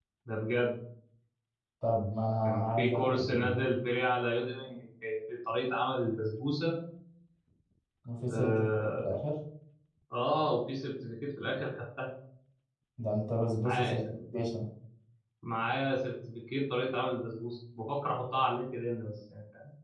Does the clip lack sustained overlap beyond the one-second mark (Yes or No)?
No